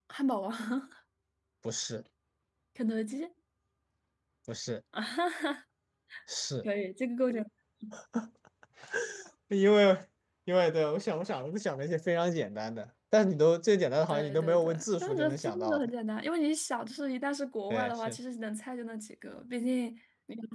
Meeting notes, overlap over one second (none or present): present